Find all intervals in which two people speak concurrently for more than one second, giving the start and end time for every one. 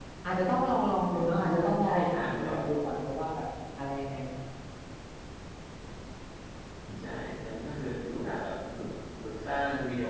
1.1-2.6

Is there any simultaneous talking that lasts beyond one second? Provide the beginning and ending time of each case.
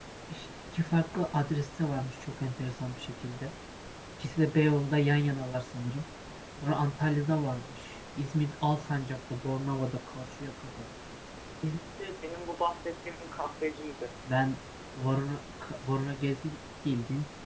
none

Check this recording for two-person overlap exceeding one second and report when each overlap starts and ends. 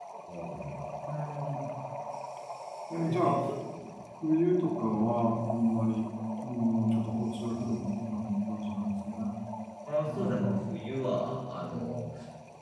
none

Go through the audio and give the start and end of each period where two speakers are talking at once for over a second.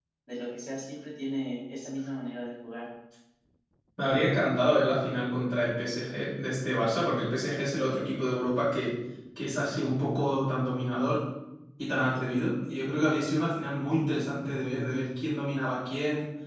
none

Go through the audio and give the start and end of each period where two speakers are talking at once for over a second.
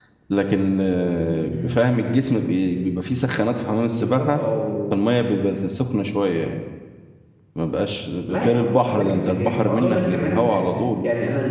8.3-10.6

